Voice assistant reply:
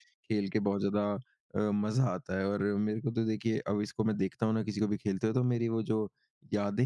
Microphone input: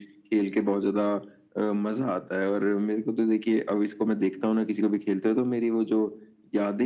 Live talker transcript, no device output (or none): none